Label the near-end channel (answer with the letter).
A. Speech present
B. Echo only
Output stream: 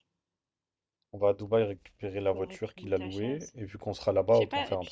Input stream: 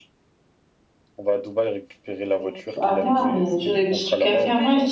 A